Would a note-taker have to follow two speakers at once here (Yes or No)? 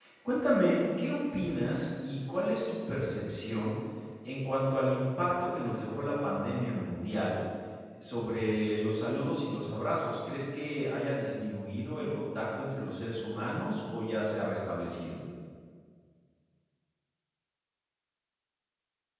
No